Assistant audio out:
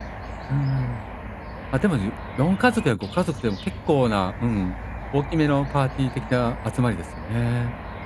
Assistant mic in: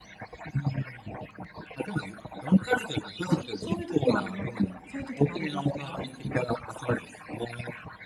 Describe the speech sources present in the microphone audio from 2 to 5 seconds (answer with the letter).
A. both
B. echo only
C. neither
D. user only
A